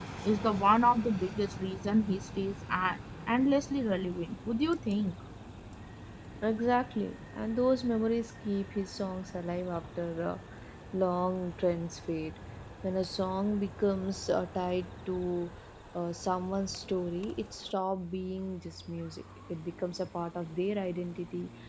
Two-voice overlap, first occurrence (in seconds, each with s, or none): none